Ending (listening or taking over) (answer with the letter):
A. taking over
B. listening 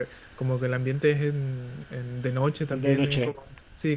B